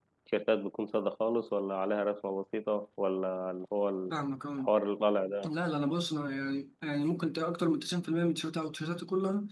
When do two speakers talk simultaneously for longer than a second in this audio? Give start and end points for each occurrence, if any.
none

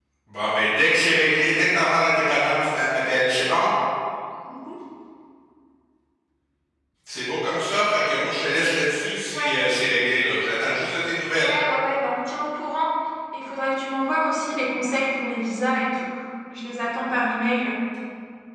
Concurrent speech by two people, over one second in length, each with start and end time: none

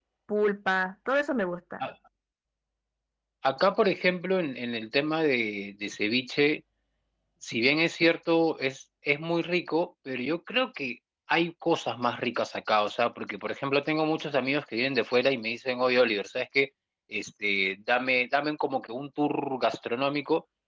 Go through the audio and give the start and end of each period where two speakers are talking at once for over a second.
none

